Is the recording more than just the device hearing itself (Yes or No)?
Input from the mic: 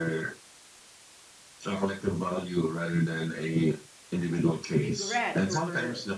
Yes